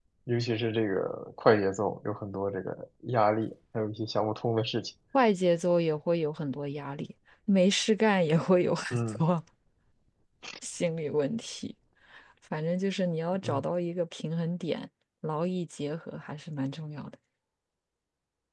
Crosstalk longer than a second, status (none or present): none